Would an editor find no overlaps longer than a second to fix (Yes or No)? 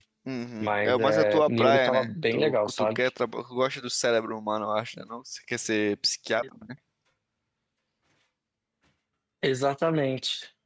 No